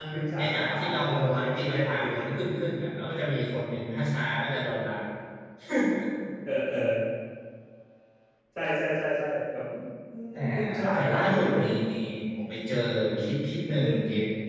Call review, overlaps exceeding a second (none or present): present